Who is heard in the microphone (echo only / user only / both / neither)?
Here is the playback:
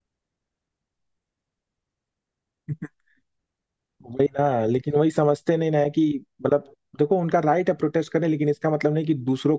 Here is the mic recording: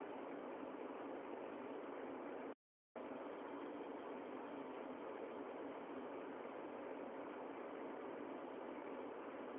neither